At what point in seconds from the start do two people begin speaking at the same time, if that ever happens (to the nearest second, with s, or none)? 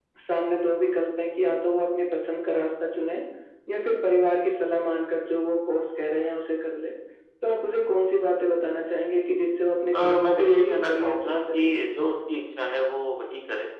10 s